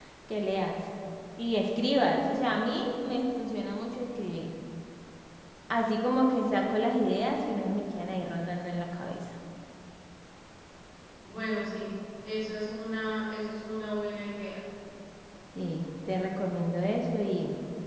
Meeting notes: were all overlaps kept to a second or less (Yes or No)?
Yes